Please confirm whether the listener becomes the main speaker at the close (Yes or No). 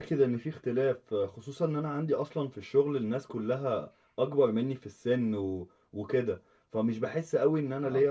No